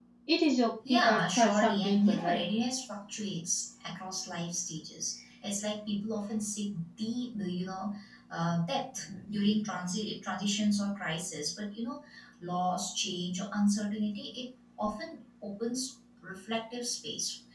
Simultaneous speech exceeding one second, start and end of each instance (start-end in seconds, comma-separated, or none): 0.9-2.4